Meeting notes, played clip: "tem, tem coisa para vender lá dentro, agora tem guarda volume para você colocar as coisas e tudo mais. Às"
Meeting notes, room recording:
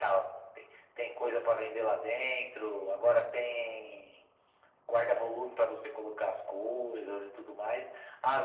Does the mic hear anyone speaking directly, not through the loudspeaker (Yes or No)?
No